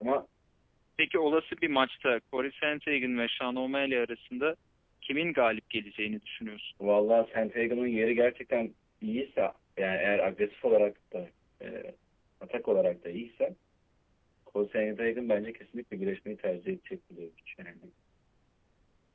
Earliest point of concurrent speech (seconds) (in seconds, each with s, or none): none